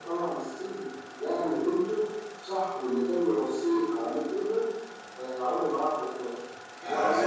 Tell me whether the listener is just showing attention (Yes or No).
No